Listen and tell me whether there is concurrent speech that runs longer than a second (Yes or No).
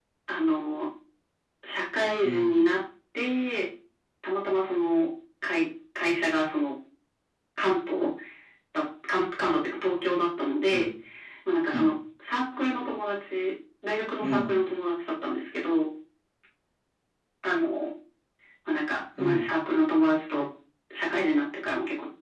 No